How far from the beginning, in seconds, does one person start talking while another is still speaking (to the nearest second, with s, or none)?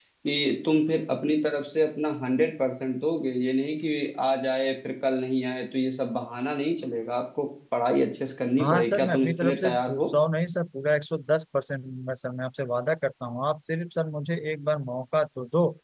9 s